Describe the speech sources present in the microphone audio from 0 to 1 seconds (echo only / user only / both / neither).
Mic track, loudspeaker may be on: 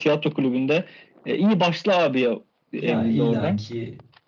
echo only